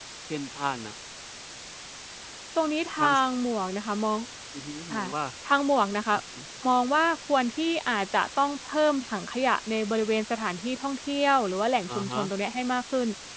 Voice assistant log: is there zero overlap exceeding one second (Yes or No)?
Yes